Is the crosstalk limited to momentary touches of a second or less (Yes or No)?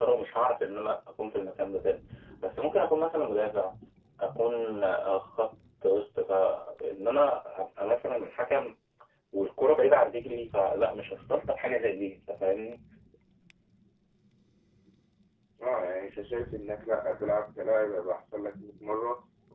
Yes